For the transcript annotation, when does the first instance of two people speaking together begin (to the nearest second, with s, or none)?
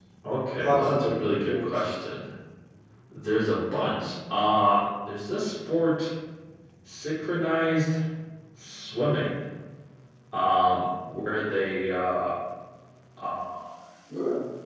1 s